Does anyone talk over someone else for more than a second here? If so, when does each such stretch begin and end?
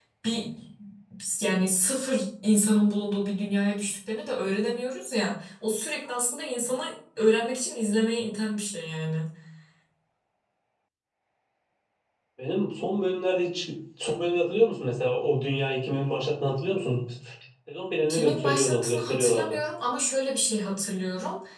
18.1-19.6

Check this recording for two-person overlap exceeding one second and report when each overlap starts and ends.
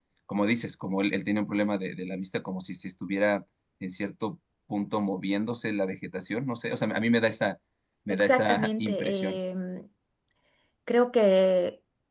8.1-9.4

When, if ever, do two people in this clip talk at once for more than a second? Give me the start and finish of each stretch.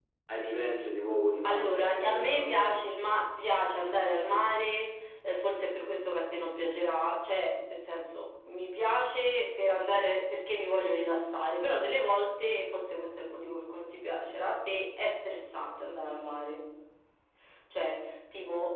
1.4-2.8

